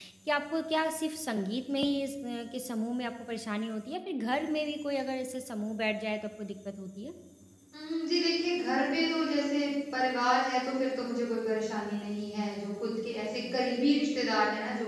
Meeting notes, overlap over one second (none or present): none